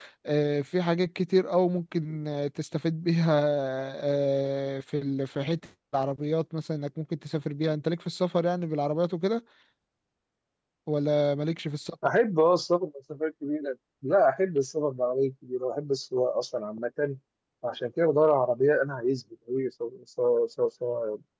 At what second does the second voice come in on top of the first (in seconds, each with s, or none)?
none